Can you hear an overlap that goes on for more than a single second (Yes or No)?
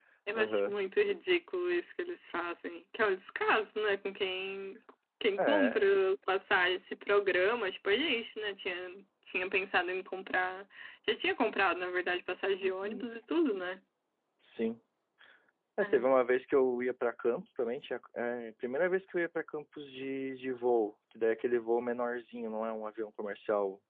No